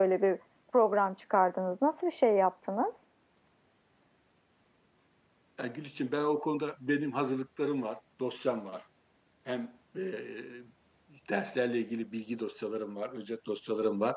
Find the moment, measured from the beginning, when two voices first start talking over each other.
none

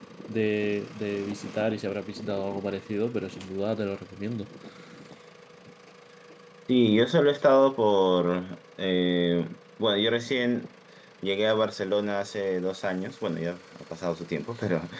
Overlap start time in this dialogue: none

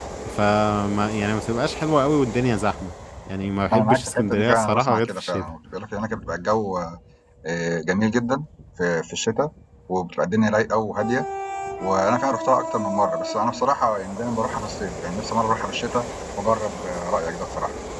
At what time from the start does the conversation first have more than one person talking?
3.7 s

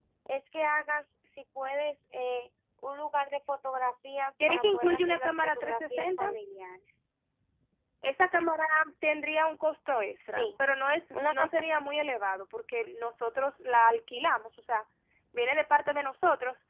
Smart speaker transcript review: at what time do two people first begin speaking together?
4.5 s

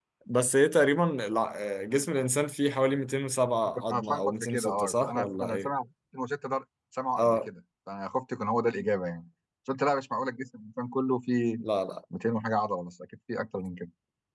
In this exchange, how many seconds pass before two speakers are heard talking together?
3.9 s

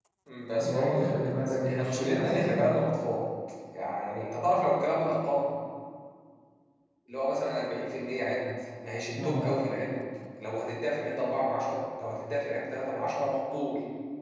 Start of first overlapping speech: 0.6 s

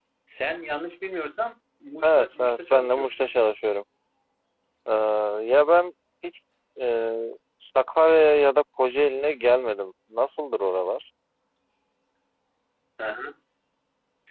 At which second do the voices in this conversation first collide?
2.0 s

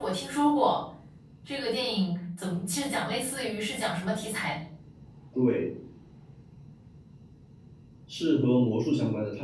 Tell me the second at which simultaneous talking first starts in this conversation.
none

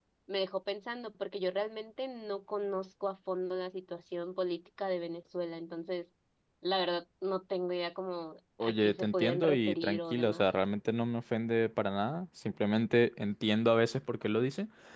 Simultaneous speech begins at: 8.6 s

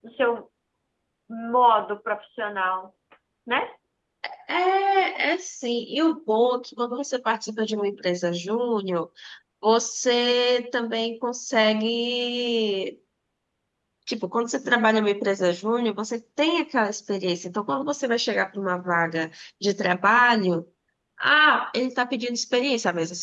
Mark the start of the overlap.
none

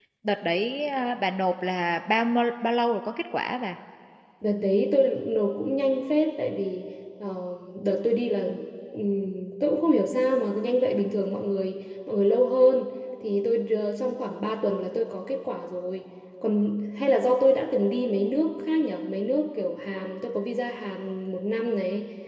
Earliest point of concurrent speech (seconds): none

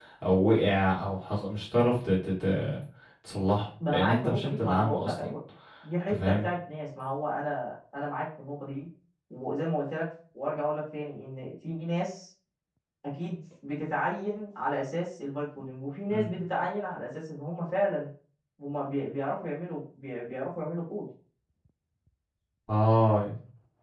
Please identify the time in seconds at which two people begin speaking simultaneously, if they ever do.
3.9 s

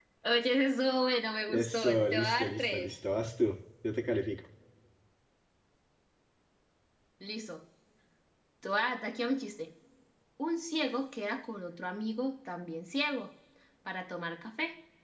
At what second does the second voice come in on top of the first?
1.5 s

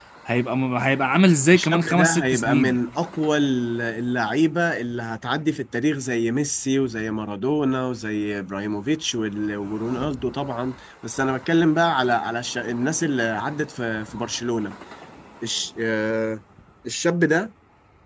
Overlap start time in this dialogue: 1.5 s

